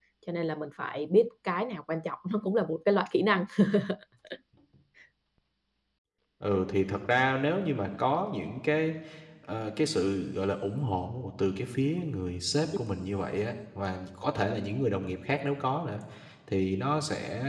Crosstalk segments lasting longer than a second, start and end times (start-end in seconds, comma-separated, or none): none